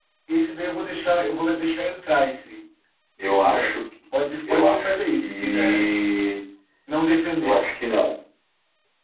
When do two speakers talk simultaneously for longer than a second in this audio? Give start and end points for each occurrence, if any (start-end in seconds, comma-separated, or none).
4.5-5.9